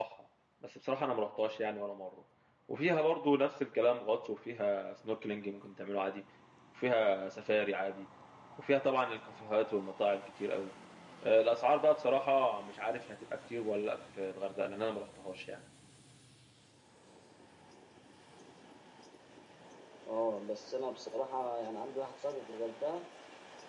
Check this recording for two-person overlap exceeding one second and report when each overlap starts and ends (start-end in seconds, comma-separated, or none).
none